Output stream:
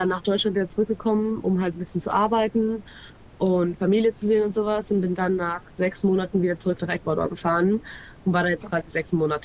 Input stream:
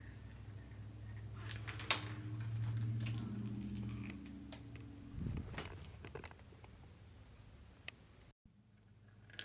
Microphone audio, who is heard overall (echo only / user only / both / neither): neither